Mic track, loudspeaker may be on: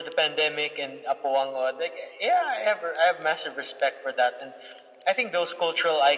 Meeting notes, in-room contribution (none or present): none